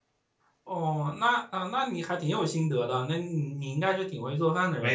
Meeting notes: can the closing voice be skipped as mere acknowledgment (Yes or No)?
No